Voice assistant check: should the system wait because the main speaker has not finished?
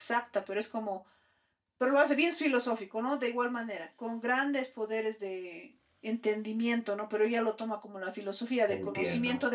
Yes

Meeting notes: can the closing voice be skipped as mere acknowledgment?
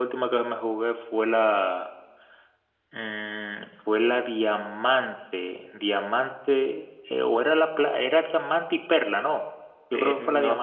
No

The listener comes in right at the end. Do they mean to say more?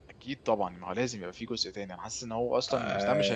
No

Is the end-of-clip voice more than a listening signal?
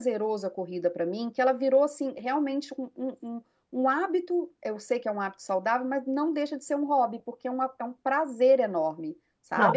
Yes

